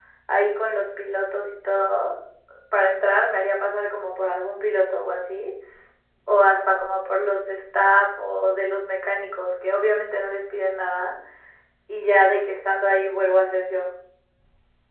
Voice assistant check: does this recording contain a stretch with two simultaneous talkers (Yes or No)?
No